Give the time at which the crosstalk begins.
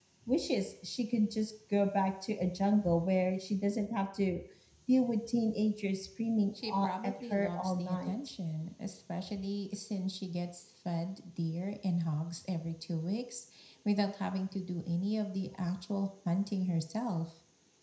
7 s

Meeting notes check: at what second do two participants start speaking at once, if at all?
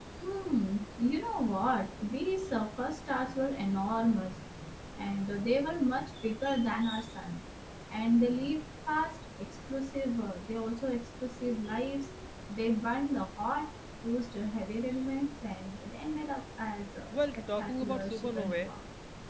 17 s

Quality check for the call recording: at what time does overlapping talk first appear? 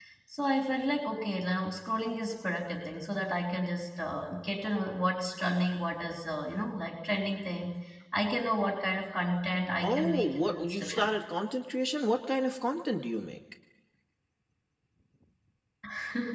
10 s

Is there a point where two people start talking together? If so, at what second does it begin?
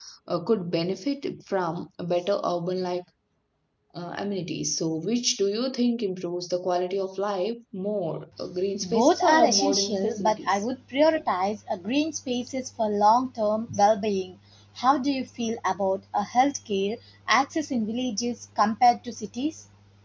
9 s

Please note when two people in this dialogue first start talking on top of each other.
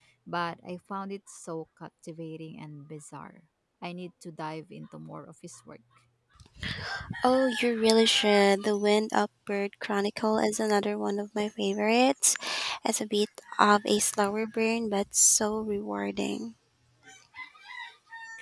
none

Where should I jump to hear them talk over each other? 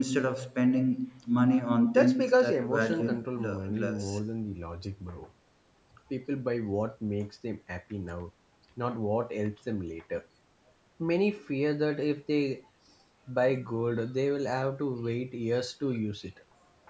2 s

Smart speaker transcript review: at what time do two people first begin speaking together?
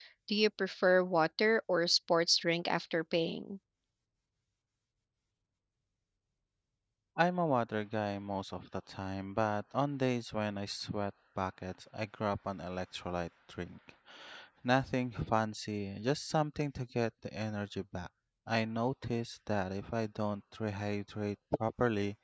none

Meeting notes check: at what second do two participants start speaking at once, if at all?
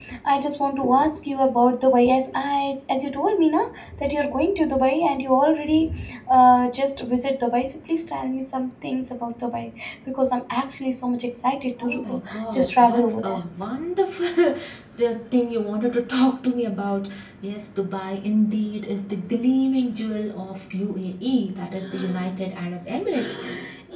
12 s

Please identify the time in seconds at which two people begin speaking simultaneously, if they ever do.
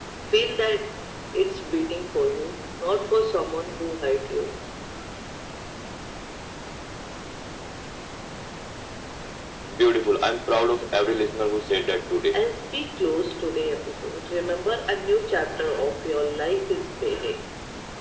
none

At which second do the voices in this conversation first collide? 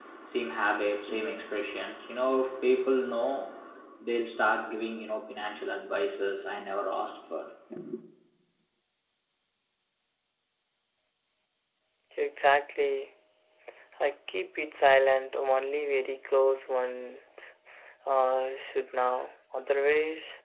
none

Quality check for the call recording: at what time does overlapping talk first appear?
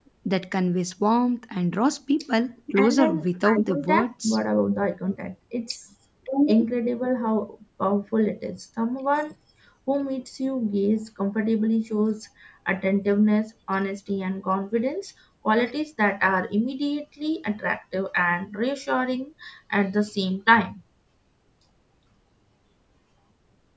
3 s

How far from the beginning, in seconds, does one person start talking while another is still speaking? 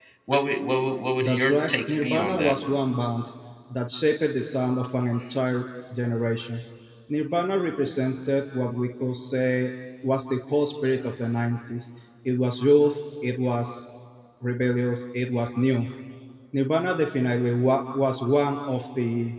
1 s

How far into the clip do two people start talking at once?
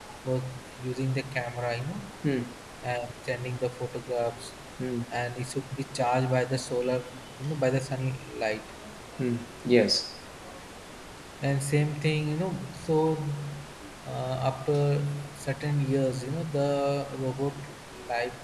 none

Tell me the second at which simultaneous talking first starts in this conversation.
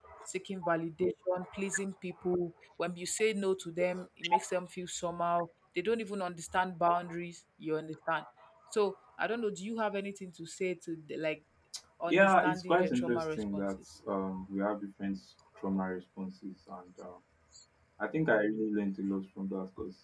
12 s

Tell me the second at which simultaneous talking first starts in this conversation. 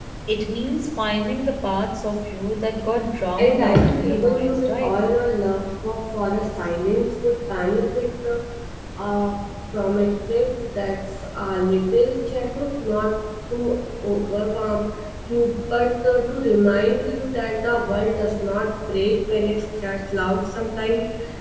3 s

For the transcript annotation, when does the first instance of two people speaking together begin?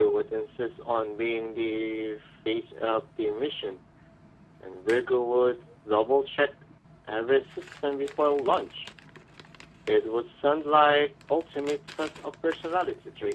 none

